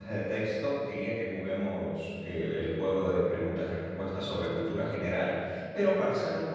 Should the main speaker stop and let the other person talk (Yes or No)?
No